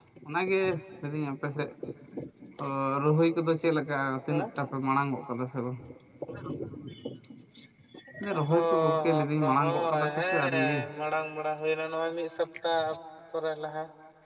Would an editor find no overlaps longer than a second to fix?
No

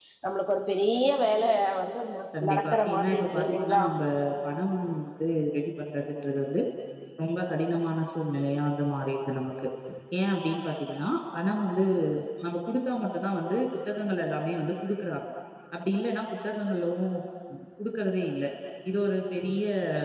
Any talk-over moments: Yes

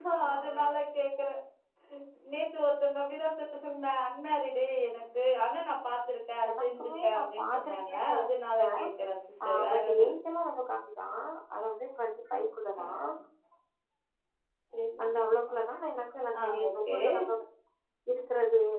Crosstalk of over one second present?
Yes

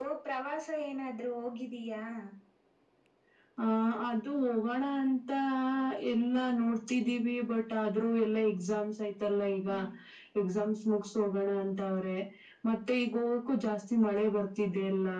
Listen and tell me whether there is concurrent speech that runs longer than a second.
No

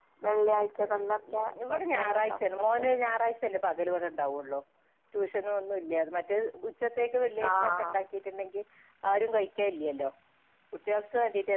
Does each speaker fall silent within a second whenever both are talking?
No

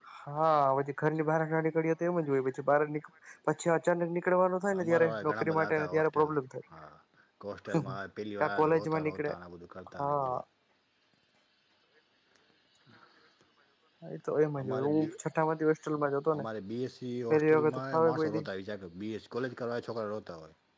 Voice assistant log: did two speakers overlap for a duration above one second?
Yes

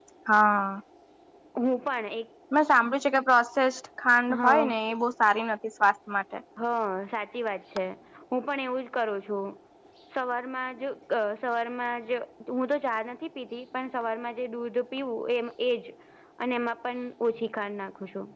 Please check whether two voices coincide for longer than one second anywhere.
No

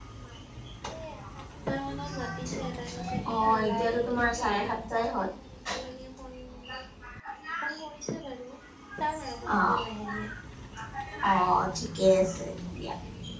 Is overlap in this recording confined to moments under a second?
No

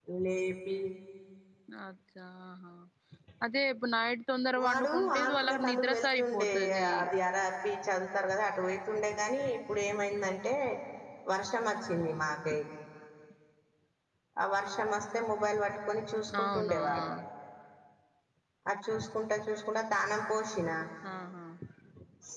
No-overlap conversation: No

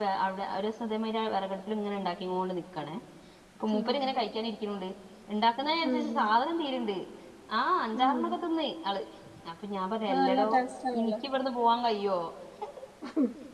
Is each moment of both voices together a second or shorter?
Yes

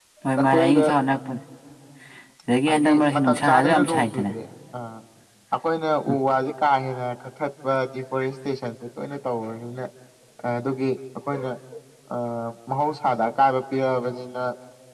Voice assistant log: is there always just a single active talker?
No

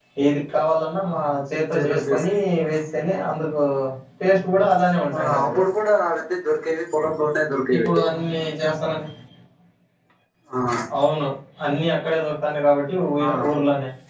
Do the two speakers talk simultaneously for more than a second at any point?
No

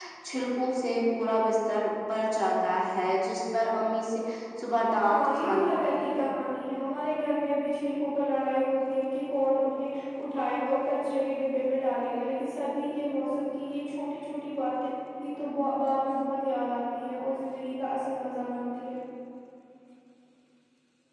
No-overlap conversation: No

